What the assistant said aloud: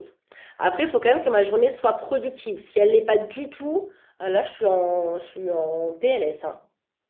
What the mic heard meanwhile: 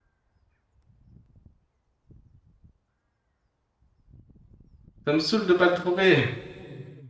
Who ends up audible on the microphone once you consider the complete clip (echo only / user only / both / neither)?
user only